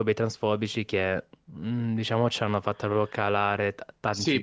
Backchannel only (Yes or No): No